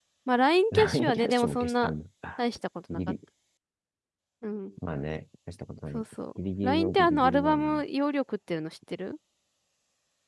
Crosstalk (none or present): present